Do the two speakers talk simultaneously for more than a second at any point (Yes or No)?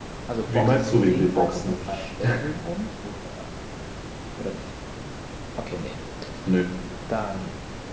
Yes